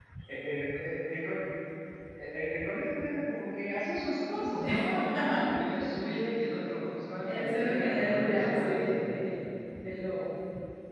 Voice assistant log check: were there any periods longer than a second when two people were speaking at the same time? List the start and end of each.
7.2-9.1

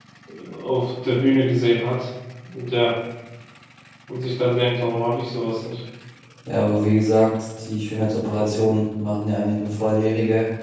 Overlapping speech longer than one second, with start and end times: none

